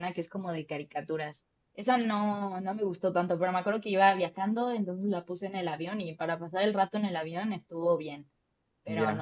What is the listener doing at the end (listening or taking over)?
taking over